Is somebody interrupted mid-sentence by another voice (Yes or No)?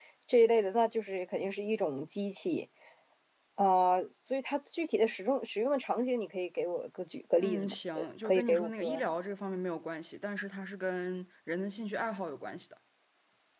Yes